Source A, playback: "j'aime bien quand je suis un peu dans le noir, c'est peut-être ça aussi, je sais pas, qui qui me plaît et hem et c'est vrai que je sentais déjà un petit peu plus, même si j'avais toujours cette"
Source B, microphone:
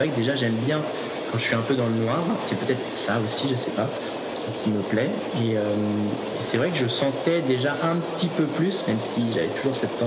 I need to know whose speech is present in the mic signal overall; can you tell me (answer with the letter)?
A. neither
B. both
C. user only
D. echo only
D